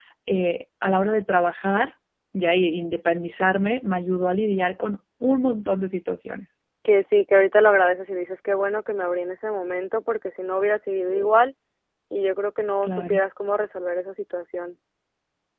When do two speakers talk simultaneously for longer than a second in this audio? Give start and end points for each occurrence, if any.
none

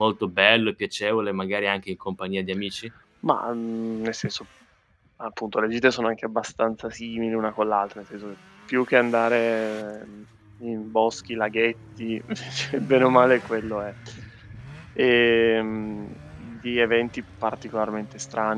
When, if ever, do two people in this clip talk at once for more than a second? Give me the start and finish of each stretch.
none

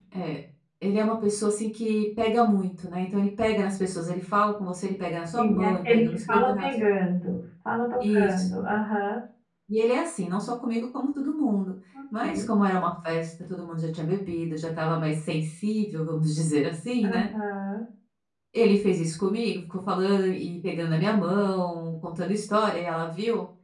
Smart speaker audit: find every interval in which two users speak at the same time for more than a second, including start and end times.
5.3-6.7

